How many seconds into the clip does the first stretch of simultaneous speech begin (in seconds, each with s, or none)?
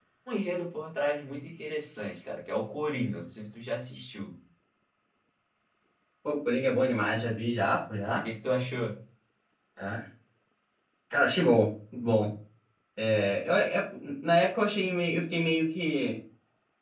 none